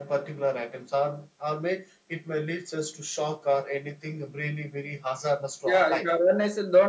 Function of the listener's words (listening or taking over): taking over